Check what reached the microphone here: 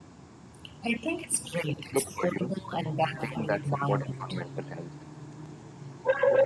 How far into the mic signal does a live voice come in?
none

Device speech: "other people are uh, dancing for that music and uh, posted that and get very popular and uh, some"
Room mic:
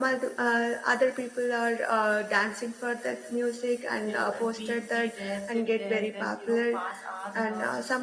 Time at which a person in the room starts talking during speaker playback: 4.0 s

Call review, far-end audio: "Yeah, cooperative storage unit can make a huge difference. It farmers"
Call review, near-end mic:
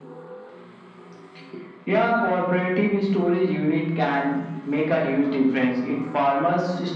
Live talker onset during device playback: none

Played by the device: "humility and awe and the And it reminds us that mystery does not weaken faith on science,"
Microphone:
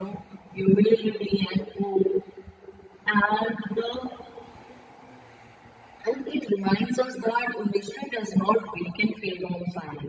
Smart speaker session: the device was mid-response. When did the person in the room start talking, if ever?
none

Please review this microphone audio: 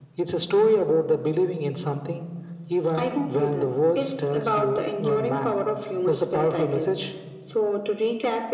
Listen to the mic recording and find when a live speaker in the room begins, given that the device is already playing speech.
none

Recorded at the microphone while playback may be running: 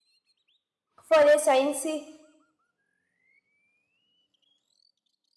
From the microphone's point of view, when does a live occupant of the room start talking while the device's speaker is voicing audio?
1.0 s

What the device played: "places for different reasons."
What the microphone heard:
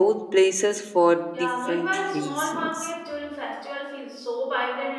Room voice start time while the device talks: 1.3 s

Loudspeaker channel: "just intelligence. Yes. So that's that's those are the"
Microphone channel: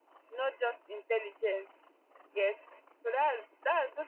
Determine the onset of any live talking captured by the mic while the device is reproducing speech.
none

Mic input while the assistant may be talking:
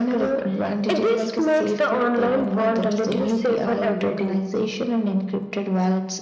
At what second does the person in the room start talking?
none

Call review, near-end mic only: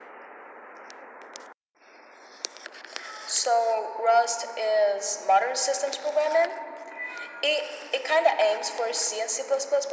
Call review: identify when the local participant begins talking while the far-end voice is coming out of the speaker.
none

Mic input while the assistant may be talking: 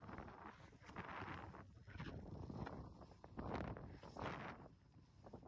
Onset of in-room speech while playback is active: none

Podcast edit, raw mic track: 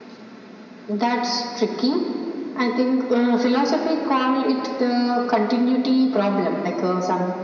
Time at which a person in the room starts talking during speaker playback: none

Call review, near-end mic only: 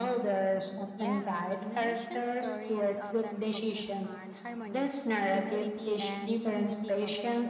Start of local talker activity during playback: 1.0 s

